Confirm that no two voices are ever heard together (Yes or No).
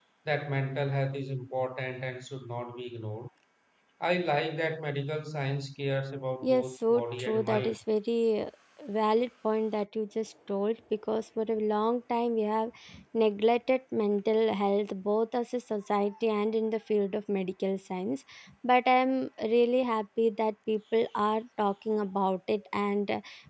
No